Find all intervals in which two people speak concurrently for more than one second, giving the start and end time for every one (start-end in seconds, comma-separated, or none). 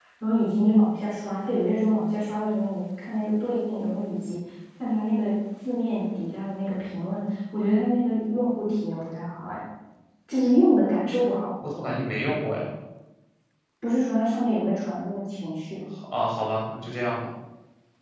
none